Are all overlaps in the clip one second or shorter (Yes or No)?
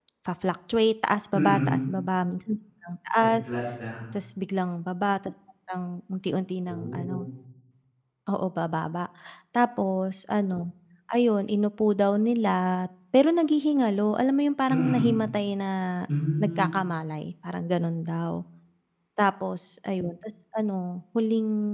Yes